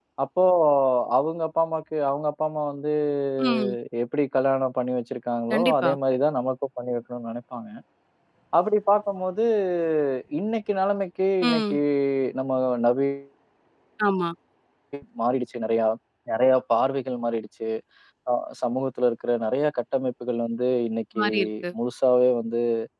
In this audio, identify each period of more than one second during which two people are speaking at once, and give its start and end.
none

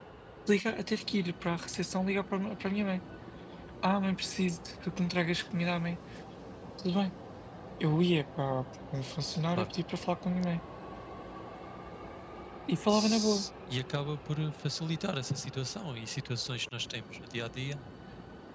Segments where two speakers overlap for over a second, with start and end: none

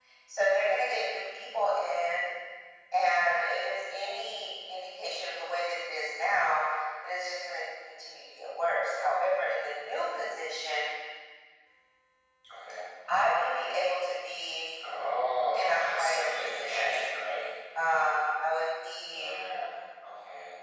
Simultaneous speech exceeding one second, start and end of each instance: 15.5-17.0

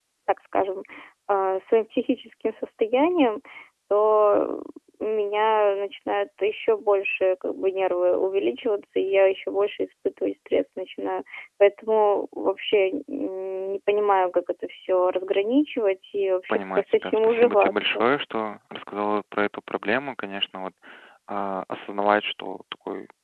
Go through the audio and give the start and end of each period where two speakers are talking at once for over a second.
16.5-18.0

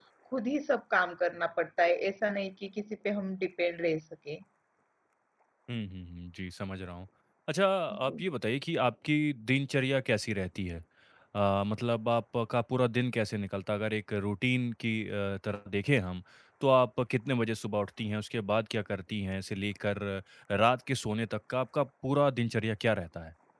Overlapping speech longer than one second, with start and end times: none

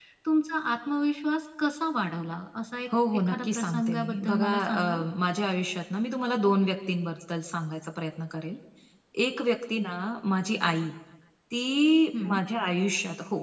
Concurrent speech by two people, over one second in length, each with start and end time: 3.1-5.0

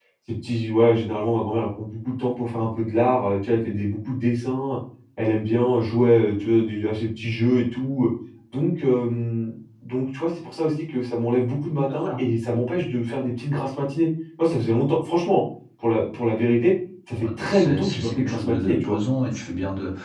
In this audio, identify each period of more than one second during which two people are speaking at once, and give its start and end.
17.2-19.0

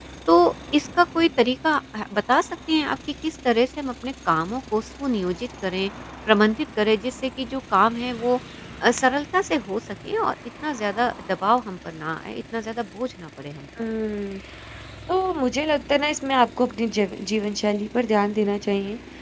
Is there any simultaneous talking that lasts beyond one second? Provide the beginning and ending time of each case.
none

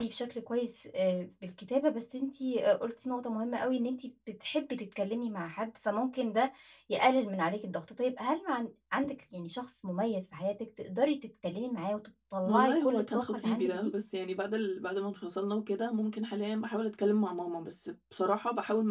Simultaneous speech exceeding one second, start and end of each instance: 12.5-13.9

